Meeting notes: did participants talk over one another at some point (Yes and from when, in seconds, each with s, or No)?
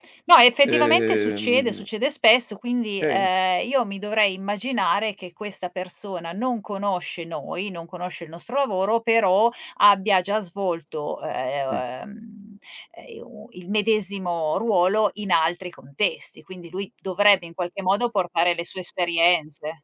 Yes, from 0.7 s